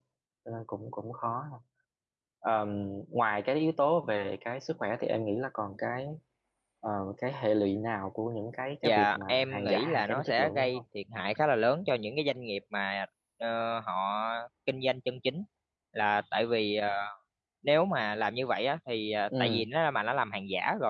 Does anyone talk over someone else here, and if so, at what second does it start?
8.8 s

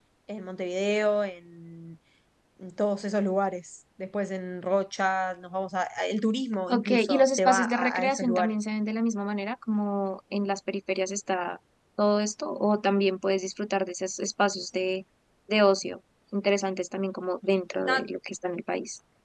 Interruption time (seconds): 6.7 s

